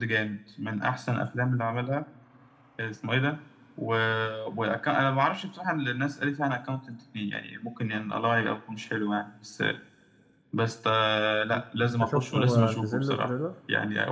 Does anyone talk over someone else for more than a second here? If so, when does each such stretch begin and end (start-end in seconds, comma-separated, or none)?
11.5-13.3